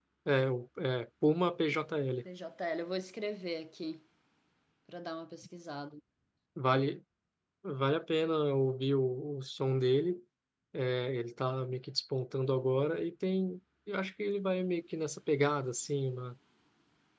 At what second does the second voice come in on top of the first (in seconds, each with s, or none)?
none